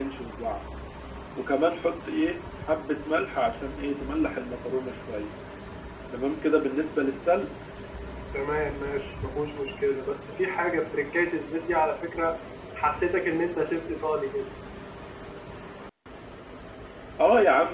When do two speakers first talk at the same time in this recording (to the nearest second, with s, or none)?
none